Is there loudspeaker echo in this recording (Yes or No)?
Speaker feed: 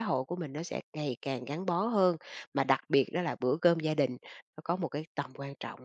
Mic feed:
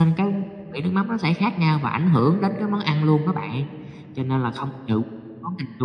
No